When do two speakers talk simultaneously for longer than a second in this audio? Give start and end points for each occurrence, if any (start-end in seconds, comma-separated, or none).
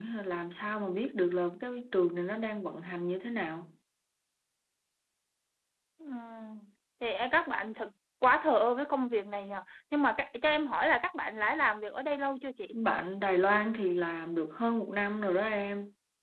none